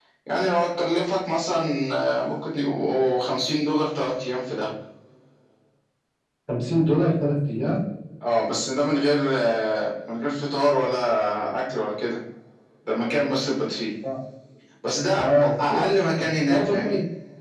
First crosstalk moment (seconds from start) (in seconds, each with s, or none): 15.1 s